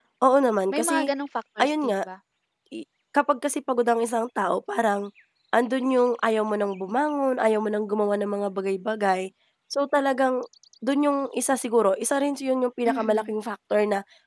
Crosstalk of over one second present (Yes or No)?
No